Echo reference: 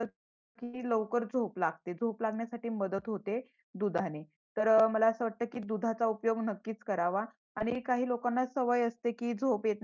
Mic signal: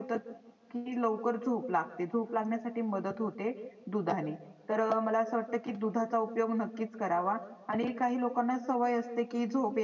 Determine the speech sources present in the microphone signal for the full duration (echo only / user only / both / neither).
echo only